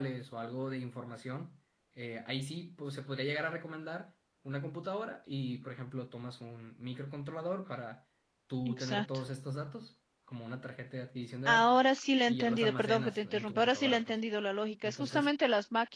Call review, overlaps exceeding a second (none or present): present